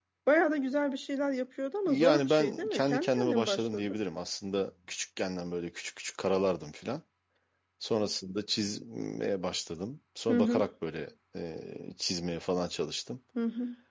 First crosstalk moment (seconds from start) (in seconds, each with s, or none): 1.9 s